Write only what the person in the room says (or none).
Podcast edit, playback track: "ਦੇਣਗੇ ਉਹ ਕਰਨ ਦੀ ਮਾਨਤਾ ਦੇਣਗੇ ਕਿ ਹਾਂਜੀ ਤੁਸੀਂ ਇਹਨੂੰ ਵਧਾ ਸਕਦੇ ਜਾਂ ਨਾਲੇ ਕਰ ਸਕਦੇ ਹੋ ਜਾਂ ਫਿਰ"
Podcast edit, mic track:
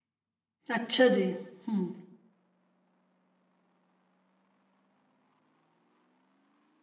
ਅੱਛਾ ਜੀ ਹਮ